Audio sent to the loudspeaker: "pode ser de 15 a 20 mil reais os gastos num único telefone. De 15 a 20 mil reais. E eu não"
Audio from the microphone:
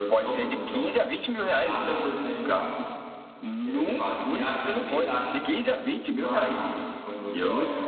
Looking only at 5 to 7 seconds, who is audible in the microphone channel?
both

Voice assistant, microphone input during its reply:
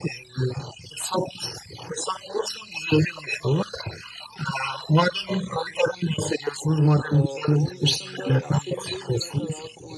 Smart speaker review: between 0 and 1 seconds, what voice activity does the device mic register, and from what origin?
echo only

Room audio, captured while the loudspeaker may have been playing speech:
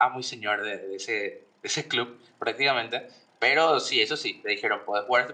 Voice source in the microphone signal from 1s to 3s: user only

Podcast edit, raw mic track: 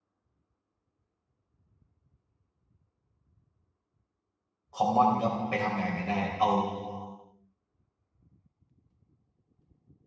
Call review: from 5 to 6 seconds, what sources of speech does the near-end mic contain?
user only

